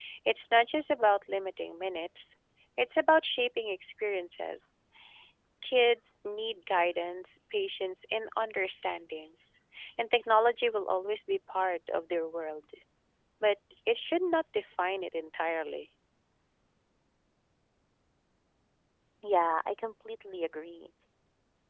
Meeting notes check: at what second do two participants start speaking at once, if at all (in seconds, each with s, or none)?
none